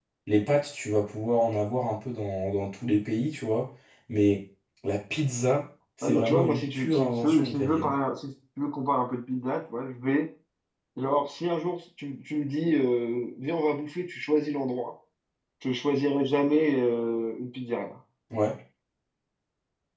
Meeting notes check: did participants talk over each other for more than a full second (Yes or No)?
Yes